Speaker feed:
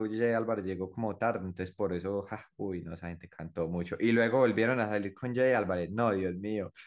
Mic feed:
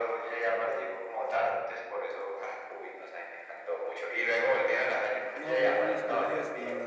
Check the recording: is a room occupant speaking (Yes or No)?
Yes